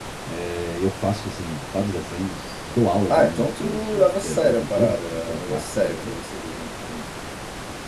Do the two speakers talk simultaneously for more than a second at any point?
Yes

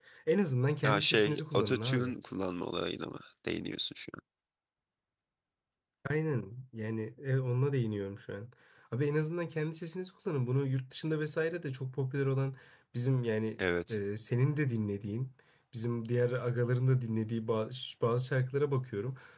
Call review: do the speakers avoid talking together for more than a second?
No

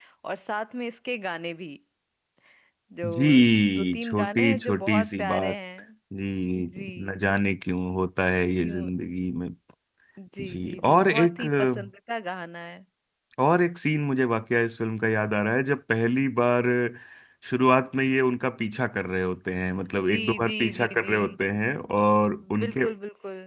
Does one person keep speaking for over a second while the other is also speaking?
Yes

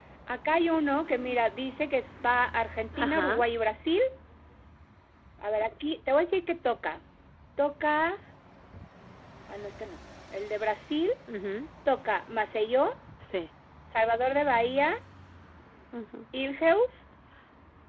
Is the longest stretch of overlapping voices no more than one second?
Yes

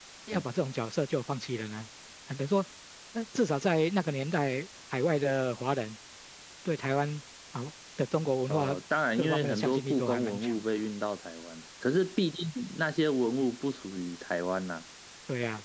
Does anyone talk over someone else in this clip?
Yes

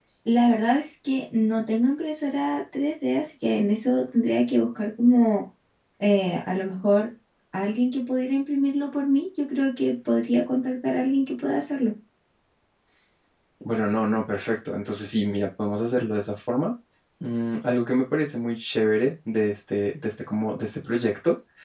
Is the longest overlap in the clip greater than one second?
No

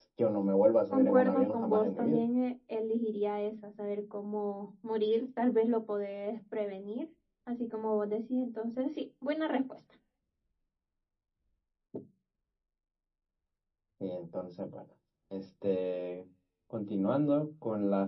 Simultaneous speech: Yes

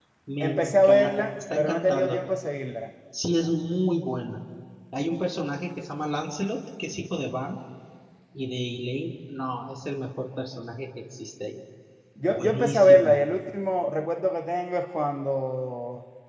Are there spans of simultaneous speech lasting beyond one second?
Yes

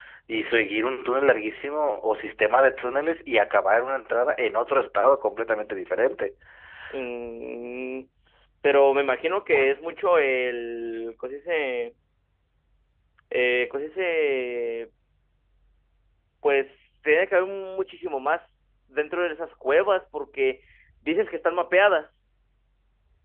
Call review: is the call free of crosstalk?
Yes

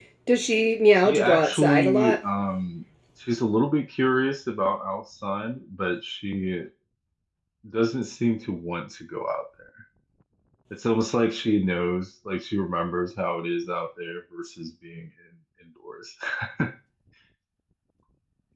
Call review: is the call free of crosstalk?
No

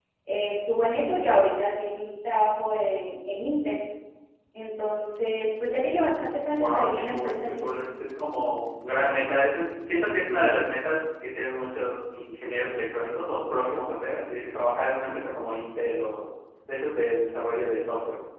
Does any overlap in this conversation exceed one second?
Yes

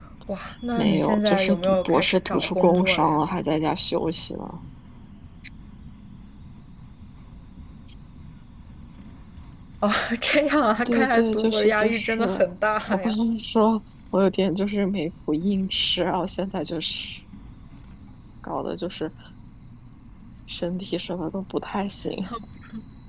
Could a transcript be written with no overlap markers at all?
No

